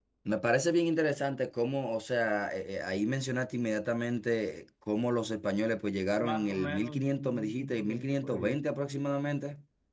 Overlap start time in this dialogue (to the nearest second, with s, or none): 6 s